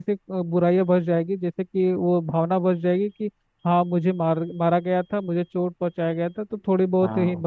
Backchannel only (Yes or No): Yes